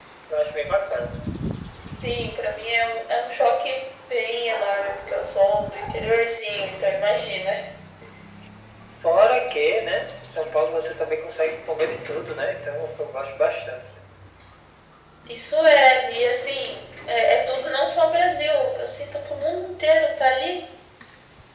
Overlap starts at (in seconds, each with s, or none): none